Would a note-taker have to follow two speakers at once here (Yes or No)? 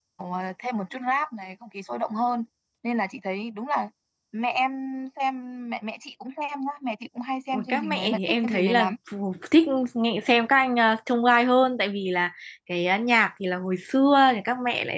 Yes